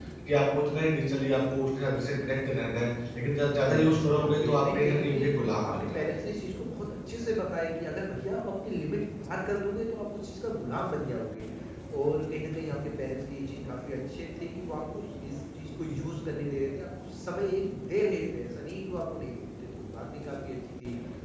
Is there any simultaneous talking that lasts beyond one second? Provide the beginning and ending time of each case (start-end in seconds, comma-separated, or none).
3.7-5.3